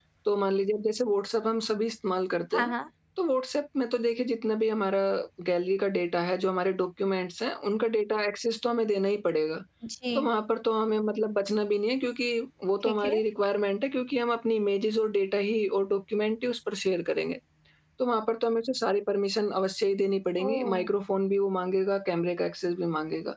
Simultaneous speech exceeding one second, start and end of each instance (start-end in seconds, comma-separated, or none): none